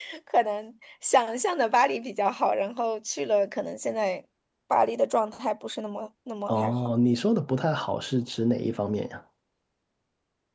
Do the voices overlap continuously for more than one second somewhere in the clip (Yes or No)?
No